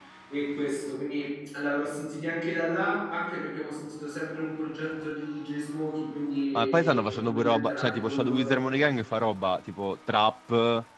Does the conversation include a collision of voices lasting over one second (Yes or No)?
Yes